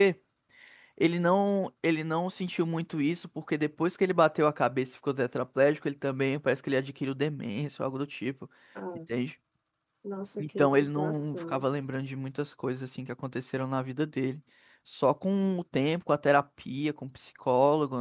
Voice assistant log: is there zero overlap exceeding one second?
No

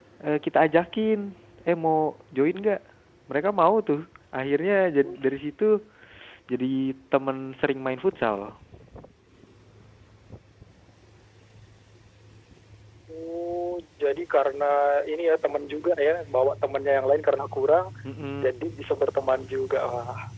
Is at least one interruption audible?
No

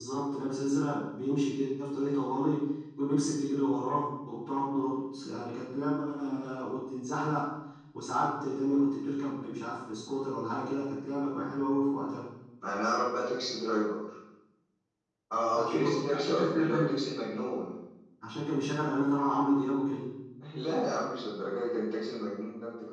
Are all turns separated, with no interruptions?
No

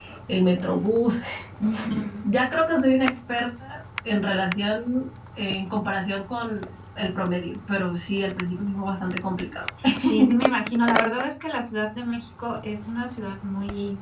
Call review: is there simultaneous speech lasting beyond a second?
No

